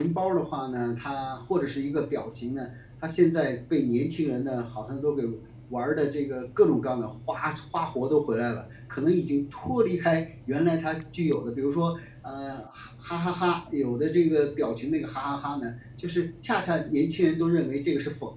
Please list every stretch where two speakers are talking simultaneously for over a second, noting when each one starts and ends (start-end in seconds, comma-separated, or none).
none